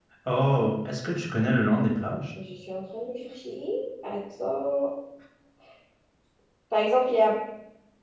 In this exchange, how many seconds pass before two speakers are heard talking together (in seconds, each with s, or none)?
none